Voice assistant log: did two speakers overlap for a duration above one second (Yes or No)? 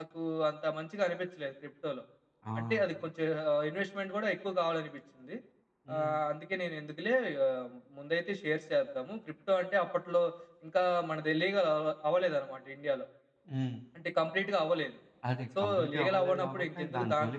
Yes